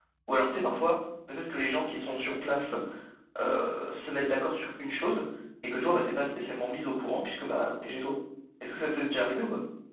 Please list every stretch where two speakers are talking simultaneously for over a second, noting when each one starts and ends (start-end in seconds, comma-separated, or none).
none